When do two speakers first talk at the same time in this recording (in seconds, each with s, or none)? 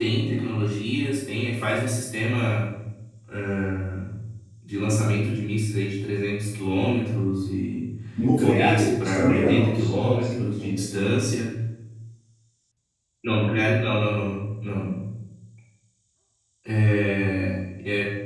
8.4 s